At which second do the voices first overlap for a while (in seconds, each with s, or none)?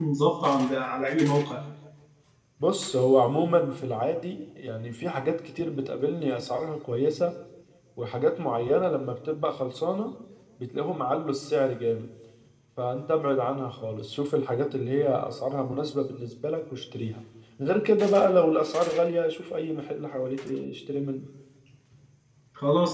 none